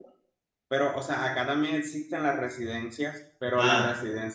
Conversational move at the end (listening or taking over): listening